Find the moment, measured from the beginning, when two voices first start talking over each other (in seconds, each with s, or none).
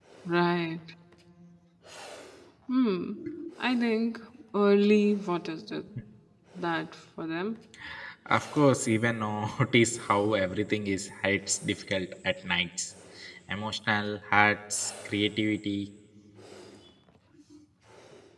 none